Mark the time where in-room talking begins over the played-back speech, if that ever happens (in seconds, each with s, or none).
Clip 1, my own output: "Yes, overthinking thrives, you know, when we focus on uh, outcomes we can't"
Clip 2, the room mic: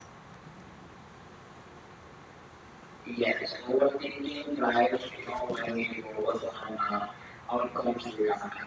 none